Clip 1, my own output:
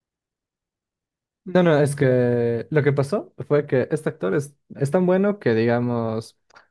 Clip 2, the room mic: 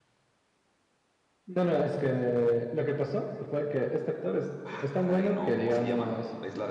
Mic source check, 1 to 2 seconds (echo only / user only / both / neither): echo only